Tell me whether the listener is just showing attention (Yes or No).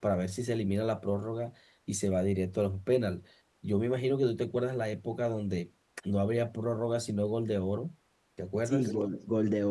No